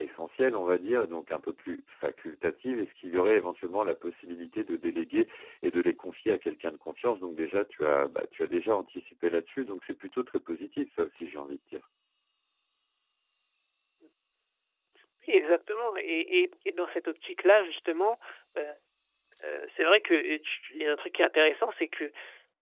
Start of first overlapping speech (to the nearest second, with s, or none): none